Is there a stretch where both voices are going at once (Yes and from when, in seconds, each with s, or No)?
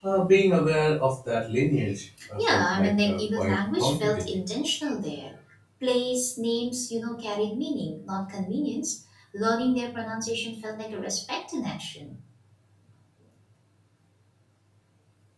Yes, from 2.4 s